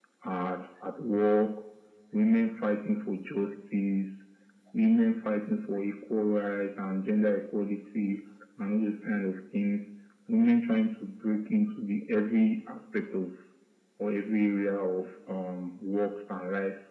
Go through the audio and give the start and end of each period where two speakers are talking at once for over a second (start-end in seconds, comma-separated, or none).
none